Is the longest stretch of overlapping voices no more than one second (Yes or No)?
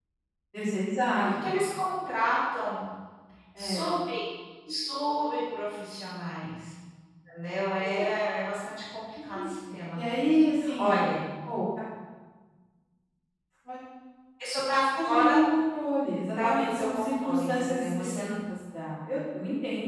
No